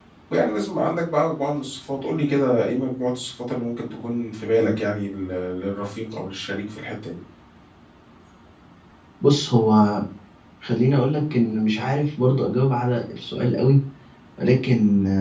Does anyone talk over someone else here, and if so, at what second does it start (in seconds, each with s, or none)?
none